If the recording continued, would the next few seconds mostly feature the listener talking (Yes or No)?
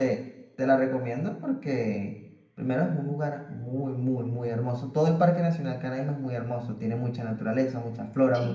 No